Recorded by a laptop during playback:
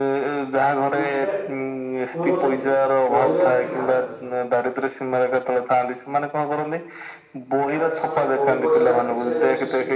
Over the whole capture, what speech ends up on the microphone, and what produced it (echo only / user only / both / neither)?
both